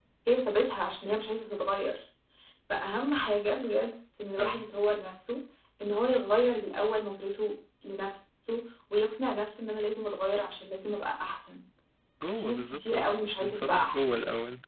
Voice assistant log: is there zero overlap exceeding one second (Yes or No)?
No